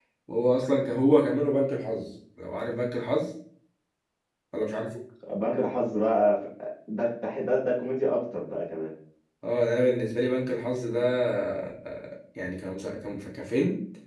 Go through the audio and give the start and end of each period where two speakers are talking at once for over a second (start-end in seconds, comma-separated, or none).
none